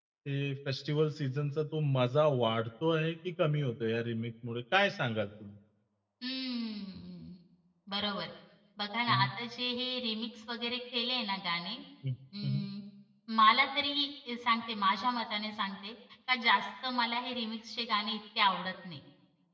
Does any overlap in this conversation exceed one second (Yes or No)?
No